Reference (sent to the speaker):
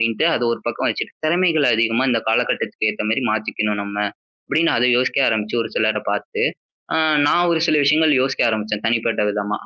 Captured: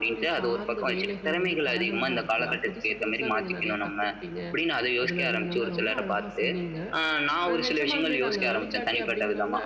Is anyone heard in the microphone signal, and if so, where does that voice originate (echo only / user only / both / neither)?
both